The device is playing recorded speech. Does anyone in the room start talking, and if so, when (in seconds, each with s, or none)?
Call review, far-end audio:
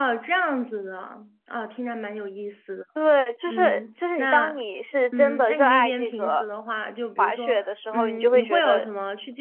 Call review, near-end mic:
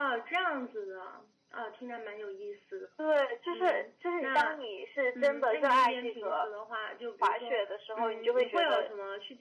none